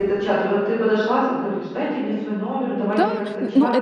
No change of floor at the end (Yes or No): No